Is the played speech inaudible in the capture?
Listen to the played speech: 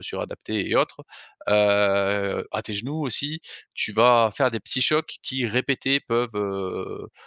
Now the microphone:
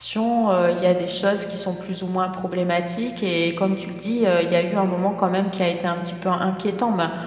Yes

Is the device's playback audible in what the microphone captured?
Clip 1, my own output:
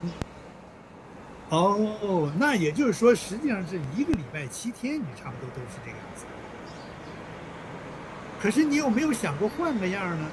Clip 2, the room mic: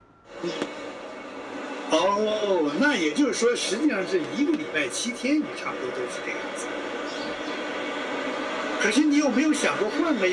Yes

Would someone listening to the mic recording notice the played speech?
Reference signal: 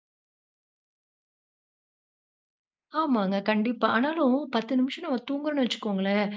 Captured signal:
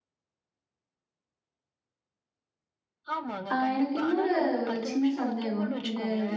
Yes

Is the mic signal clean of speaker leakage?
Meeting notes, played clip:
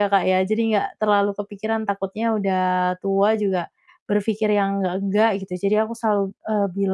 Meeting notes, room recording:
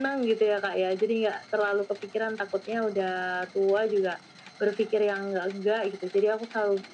No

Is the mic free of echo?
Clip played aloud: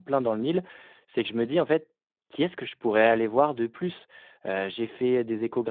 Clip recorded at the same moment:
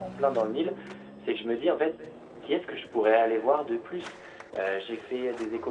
No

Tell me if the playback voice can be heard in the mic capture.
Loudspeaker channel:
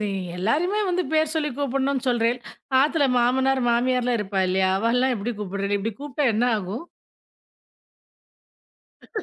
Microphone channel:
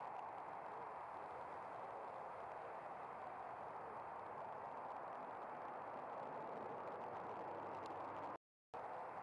No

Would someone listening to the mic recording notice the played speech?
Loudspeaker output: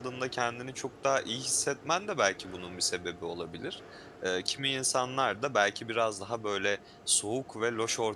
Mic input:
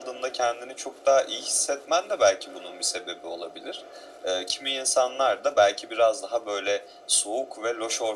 Yes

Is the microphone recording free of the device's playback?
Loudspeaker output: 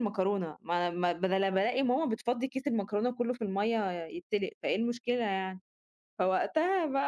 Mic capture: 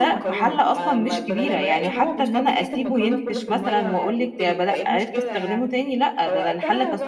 No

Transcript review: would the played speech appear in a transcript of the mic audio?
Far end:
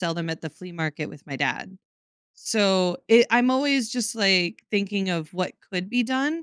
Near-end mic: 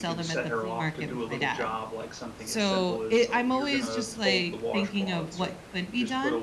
Yes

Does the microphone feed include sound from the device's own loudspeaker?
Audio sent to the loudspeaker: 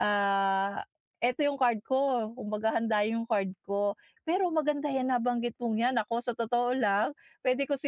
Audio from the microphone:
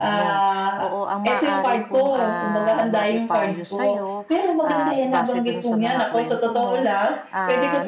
Yes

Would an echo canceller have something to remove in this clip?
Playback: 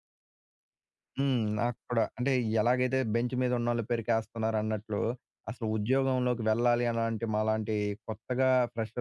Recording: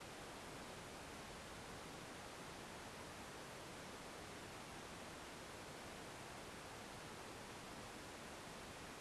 No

